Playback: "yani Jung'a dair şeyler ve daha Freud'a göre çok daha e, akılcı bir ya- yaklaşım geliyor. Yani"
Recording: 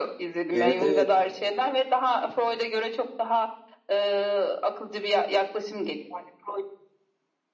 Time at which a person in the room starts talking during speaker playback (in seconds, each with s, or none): 0.5 s